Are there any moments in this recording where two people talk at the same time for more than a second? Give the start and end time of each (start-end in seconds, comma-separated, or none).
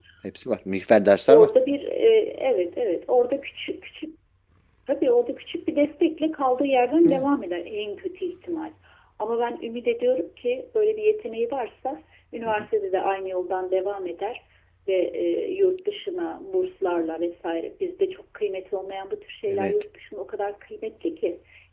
none